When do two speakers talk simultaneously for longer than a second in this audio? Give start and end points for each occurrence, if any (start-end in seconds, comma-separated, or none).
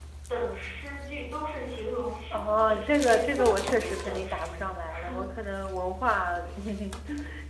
2.3-4.7